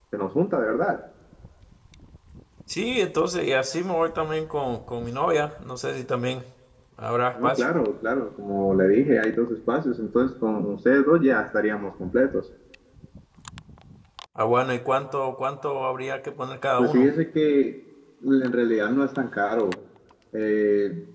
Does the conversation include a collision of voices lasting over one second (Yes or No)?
No